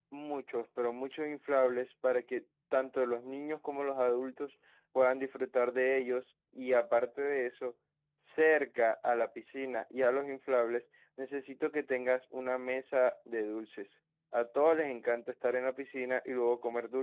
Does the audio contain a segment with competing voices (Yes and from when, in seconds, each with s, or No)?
No